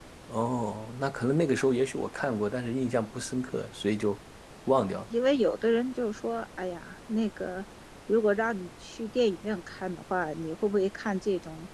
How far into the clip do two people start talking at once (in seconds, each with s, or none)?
none